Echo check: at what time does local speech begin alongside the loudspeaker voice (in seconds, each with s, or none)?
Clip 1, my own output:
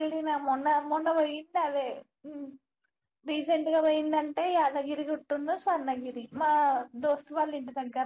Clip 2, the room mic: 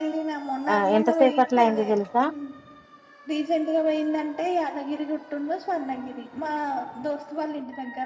0.7 s